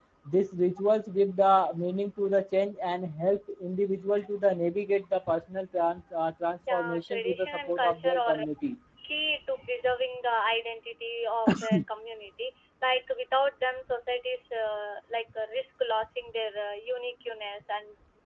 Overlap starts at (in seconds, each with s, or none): 6.7 s